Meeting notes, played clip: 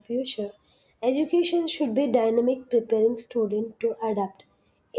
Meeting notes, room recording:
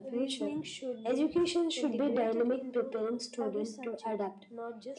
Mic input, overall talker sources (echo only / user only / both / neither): both